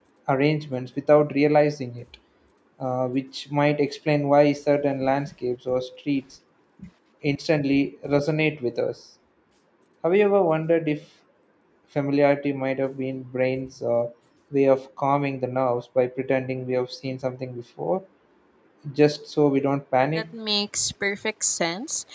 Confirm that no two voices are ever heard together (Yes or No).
Yes